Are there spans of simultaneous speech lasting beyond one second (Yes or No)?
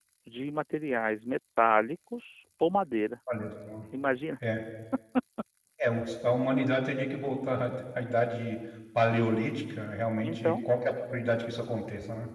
No